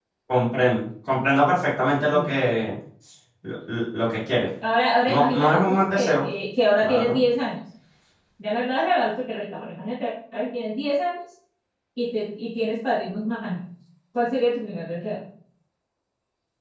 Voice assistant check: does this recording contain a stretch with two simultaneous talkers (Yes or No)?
Yes